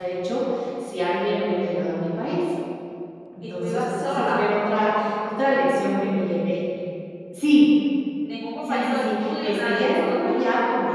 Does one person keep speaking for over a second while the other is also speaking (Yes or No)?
Yes